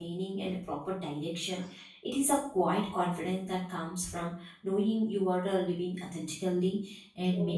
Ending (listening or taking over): listening